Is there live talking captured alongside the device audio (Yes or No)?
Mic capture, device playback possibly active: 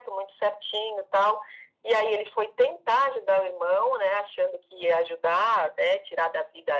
No